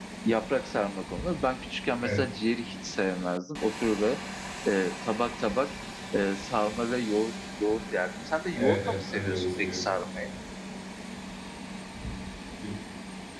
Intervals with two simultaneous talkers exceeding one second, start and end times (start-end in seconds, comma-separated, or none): 8.6-9.9